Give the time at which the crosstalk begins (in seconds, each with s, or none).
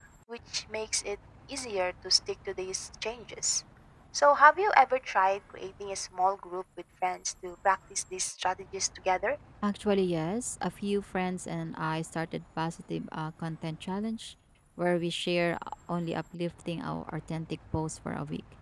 none